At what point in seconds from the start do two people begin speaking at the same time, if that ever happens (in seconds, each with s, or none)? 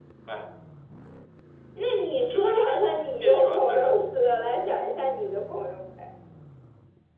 2.3 s